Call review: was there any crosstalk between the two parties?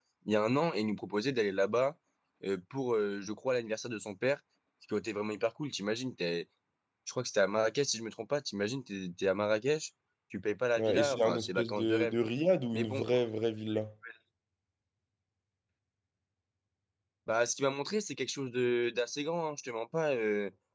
Yes, from 10.8 s

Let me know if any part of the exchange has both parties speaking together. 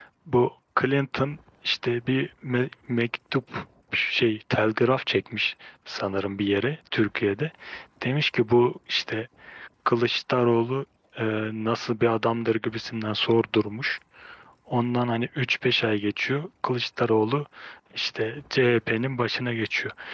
No

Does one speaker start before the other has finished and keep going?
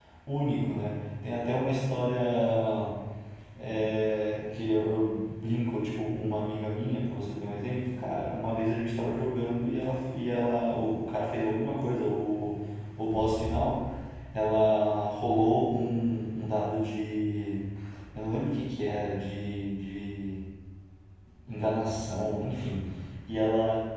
No

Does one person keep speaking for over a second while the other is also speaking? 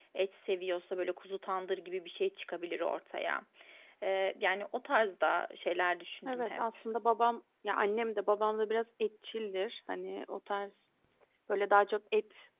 No

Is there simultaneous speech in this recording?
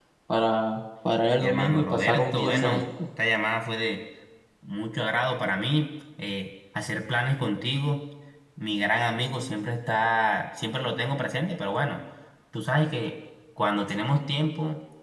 Yes, from 1.4 s

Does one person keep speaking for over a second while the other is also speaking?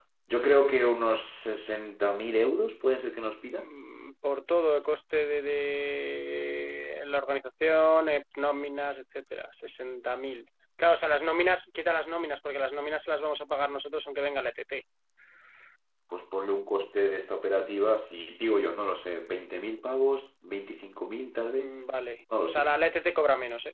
No

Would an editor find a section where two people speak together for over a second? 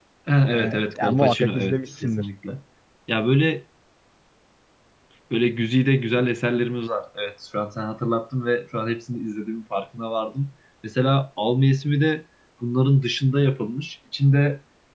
Yes, from 0.5 s

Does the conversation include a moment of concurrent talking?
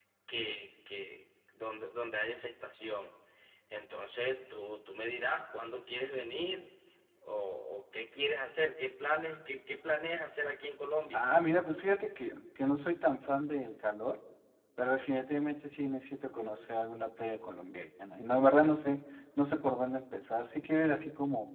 No

